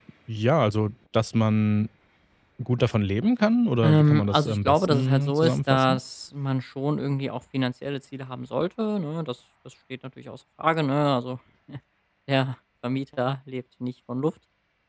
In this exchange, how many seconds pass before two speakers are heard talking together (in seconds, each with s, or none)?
3.8 s